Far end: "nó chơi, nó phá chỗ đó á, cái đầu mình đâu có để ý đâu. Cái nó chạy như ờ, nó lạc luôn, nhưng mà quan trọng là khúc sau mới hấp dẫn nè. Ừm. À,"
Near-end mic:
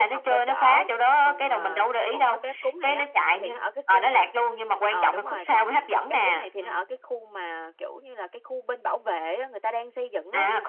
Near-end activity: present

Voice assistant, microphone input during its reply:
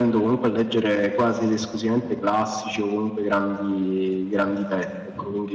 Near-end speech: none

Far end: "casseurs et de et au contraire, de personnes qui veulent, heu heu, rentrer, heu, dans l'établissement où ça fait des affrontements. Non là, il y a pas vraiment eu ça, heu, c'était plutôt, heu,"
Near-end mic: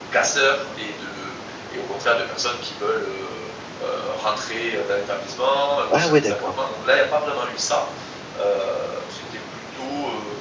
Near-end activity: present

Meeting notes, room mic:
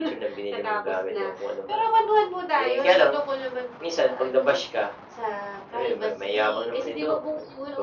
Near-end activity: none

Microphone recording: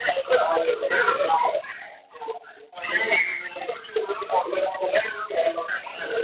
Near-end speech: none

